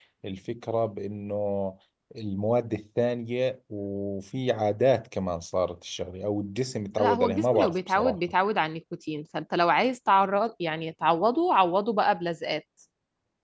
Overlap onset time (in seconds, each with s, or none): 7.0 s